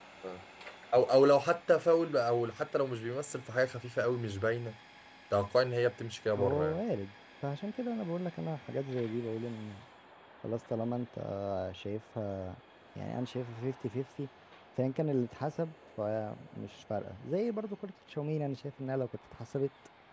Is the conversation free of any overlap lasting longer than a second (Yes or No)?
Yes